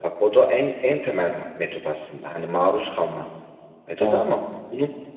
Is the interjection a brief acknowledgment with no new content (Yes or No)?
Yes